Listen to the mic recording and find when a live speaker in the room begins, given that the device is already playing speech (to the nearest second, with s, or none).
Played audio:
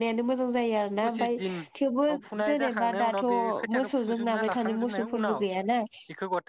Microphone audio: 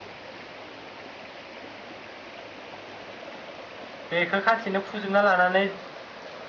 4 s